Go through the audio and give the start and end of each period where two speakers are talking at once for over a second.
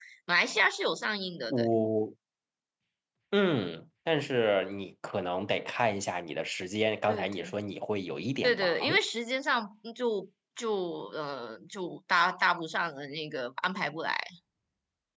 none

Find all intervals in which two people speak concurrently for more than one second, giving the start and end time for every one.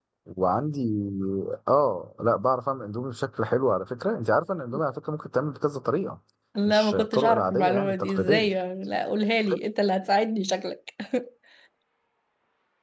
6.7-8.5

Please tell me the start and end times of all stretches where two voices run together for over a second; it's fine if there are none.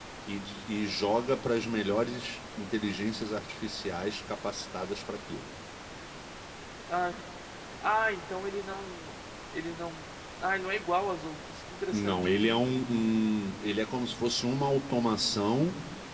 none

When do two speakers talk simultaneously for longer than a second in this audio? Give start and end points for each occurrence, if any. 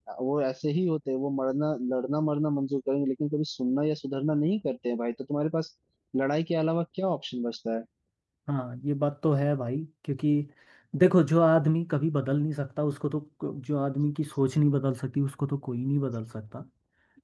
none

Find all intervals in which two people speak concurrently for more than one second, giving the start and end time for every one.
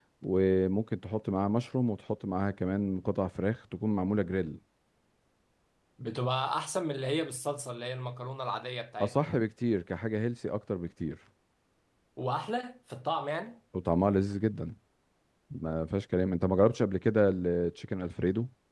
none

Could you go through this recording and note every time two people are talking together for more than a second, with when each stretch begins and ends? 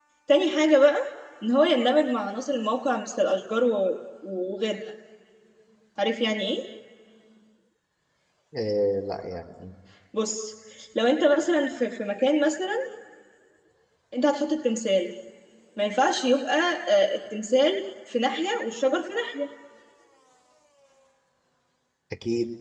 none

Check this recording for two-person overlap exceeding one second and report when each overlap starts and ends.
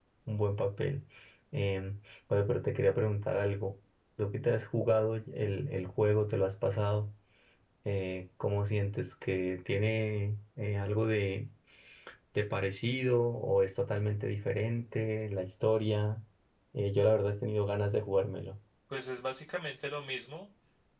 none

